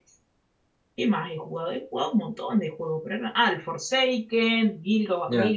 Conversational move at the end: listening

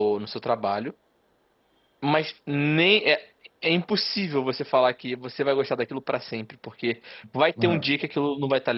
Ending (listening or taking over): listening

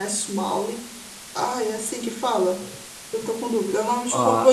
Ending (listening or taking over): taking over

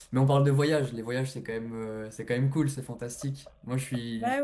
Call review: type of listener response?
listening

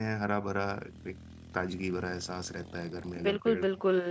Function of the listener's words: taking over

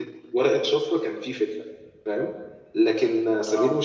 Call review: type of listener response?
listening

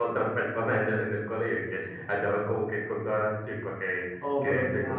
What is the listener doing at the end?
taking over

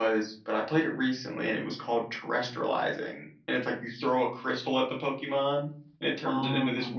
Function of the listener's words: listening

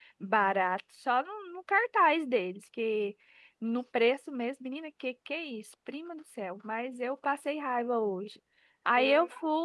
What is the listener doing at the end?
listening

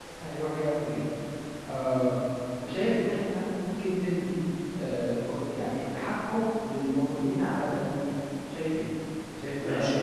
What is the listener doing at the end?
taking over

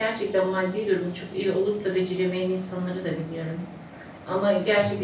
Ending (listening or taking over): listening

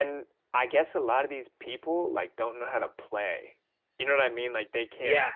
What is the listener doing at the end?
listening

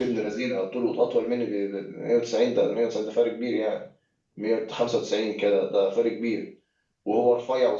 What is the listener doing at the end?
listening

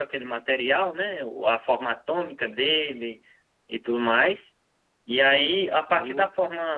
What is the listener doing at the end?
listening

